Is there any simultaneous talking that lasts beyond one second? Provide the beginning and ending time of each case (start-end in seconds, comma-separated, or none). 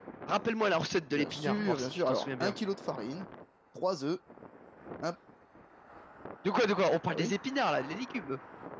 1.1-2.5